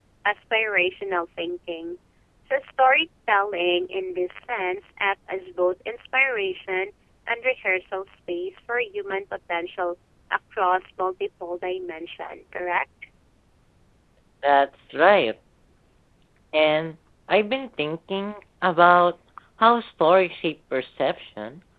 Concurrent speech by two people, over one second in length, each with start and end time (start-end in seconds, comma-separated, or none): none